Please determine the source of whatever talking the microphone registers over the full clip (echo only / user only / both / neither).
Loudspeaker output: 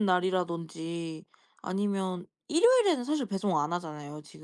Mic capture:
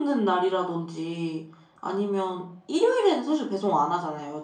echo only